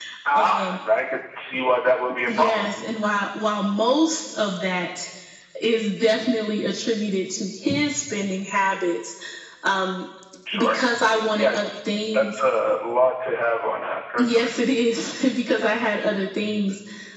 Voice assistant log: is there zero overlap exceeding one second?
Yes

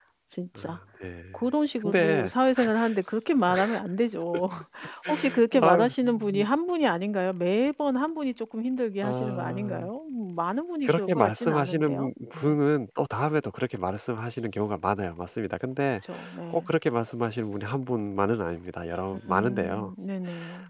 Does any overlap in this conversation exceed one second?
Yes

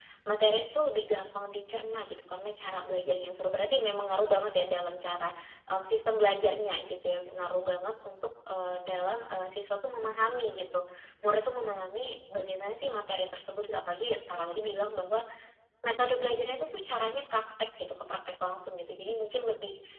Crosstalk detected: No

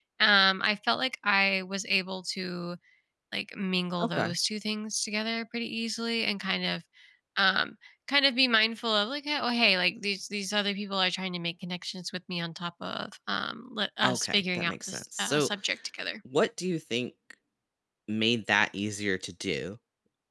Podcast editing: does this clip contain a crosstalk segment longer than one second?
Yes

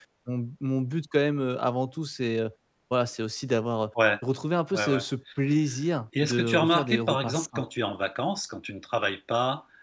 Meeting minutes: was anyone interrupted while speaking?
Yes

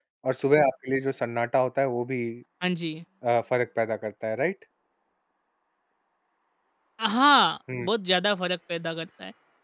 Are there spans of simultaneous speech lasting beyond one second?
No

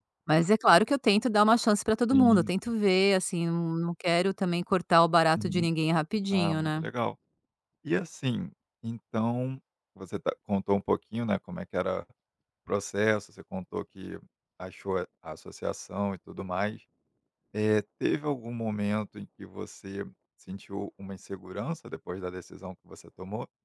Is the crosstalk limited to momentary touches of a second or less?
Yes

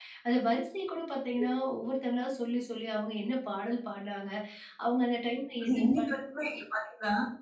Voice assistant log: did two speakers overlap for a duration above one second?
No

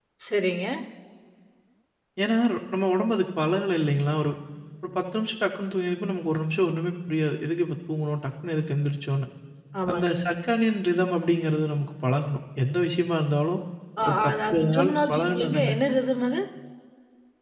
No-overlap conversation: No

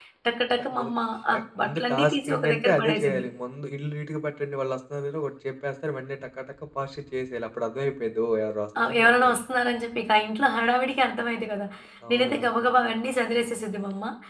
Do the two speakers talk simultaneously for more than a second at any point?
Yes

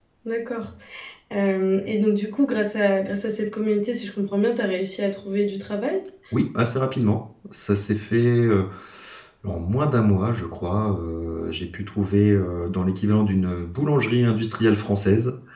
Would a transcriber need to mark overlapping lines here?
No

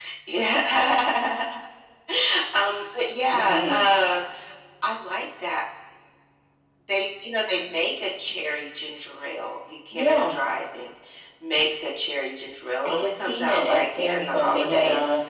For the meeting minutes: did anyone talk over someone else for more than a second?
Yes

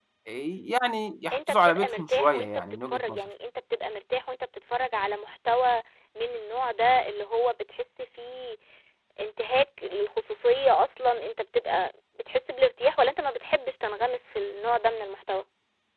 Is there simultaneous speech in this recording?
Yes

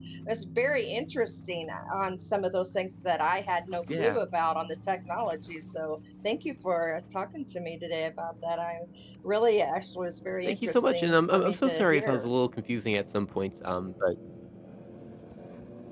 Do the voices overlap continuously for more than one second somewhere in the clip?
Yes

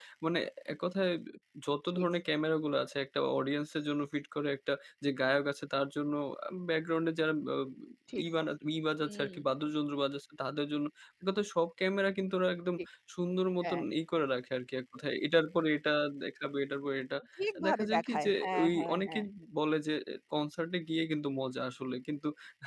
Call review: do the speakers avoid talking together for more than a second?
No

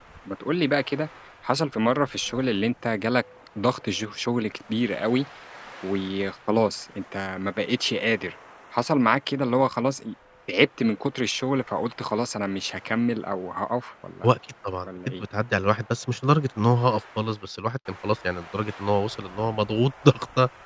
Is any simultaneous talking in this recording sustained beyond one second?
No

